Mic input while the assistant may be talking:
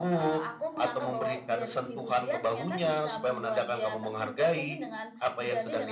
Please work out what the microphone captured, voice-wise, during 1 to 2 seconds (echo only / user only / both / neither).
echo only